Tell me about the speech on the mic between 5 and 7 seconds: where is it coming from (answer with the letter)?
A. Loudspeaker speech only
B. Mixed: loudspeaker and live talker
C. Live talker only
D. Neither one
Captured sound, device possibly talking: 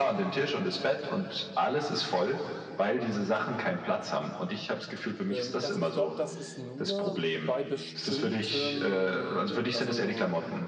B